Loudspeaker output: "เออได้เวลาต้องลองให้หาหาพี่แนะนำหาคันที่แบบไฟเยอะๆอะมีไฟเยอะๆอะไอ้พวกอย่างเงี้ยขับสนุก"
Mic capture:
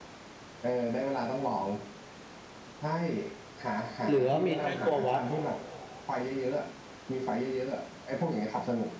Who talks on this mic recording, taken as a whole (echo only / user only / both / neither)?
both